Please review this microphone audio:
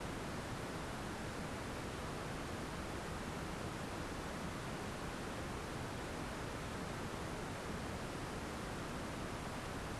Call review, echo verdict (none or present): none